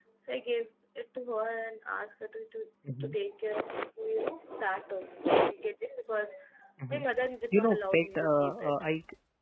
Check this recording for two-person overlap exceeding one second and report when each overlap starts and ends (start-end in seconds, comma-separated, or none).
7.5-8.7